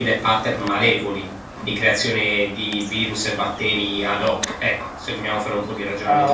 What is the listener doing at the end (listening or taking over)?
taking over